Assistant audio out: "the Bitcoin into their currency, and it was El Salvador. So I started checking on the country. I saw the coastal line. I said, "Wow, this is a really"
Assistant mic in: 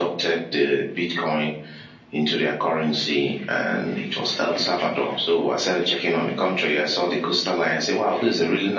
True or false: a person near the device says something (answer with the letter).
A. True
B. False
B